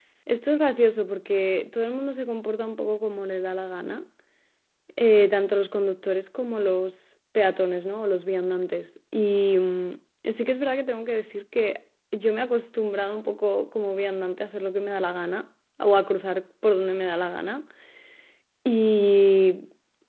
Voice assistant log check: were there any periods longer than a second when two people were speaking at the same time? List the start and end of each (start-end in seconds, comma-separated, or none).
none